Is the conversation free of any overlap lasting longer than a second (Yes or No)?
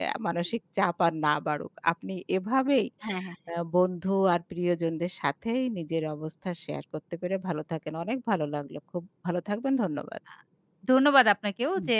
Yes